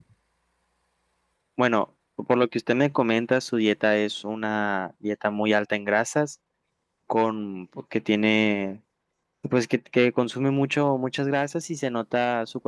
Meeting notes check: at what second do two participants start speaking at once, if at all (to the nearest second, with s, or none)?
none